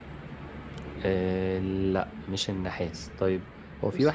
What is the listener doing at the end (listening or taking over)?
listening